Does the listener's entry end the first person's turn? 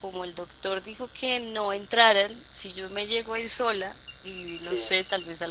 No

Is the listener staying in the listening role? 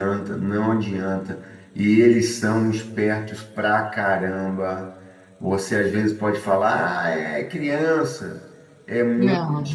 Yes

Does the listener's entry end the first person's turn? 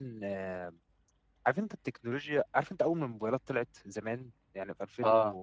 No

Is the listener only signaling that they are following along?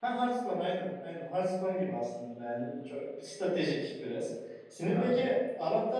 Yes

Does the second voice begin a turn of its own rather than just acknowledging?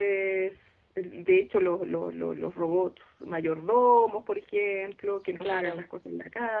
No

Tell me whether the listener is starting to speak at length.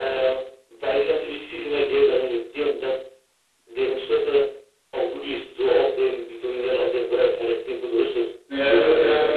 Yes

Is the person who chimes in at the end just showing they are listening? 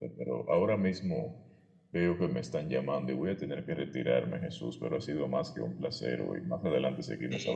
No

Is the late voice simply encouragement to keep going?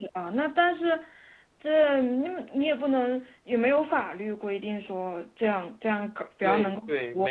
No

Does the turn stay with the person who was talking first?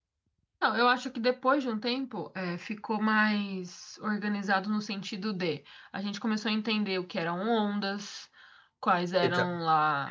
Yes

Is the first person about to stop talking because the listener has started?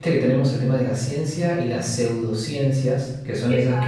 No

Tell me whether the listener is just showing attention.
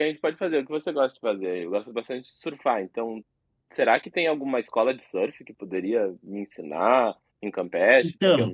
No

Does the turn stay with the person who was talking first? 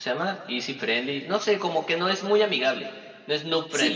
No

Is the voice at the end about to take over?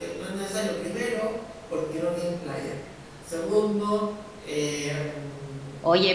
Yes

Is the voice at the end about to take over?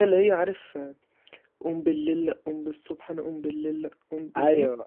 Yes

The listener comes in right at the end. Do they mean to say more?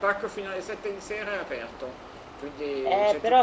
Yes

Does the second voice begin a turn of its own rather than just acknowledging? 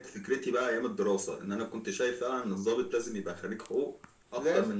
No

